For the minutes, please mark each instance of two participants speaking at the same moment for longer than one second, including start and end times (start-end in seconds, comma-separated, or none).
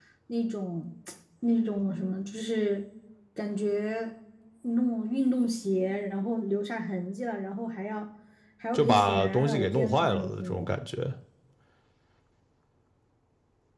8.7-10.7